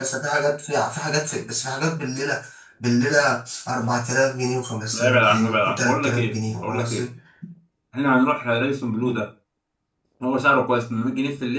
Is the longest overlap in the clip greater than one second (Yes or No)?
Yes